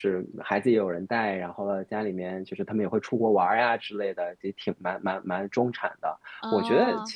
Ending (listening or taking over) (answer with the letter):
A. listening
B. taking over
A